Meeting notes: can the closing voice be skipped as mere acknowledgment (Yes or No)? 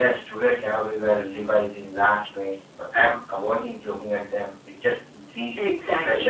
No